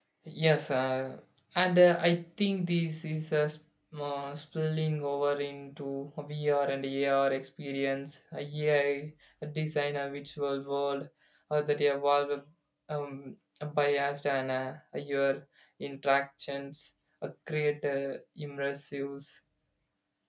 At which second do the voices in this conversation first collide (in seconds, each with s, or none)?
none